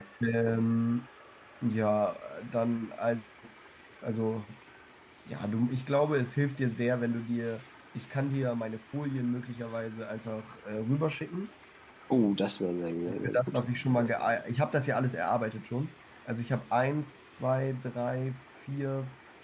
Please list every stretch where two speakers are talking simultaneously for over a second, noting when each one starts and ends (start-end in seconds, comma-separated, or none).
none